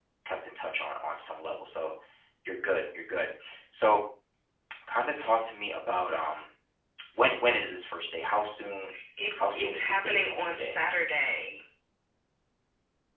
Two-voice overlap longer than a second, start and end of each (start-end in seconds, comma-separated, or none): 9.4-10.8